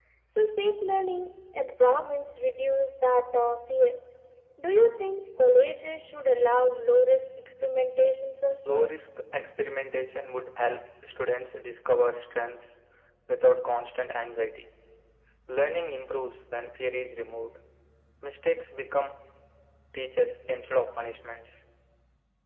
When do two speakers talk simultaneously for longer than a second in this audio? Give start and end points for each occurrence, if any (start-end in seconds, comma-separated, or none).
none